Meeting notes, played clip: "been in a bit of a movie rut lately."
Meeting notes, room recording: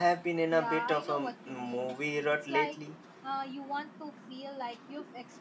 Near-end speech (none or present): present